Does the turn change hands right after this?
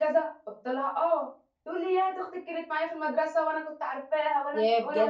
No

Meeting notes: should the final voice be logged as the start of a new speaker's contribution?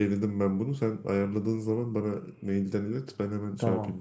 Yes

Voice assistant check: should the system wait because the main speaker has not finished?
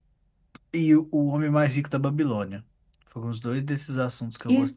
No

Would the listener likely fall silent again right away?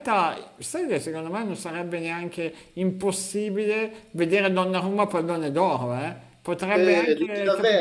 No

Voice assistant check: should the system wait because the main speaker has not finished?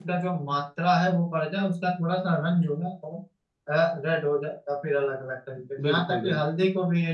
Yes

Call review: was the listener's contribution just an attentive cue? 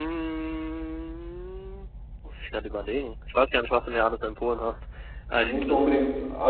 No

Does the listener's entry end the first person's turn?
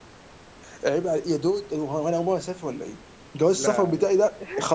No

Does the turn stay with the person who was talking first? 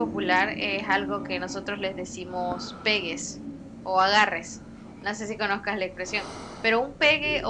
Yes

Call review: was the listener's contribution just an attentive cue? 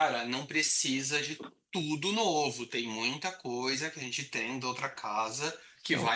Yes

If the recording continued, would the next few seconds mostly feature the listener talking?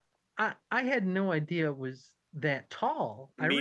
No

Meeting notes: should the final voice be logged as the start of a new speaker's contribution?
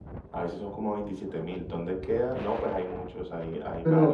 Yes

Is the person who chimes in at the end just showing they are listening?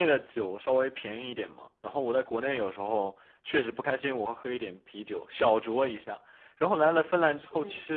Yes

